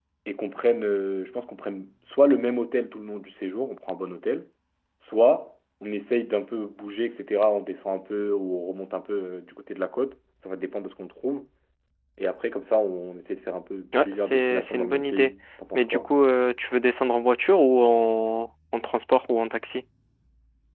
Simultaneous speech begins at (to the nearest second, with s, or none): 14 s